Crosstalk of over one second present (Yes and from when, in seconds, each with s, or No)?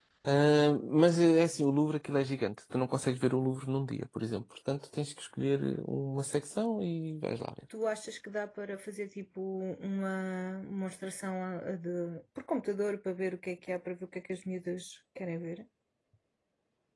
No